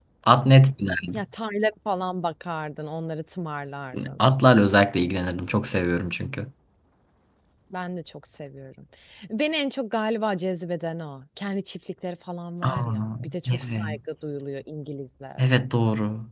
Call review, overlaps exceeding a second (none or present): present